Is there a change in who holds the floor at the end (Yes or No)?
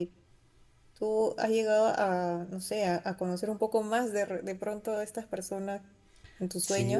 Yes